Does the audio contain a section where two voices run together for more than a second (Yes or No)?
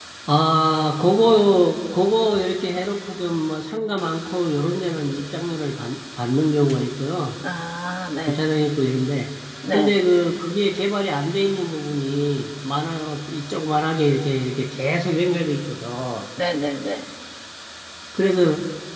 No